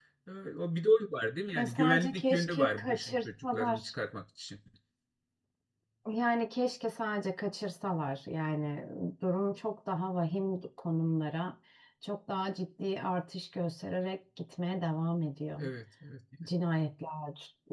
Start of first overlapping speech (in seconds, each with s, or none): 1.6 s